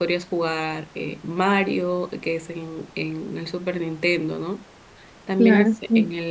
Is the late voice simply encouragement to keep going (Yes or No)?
Yes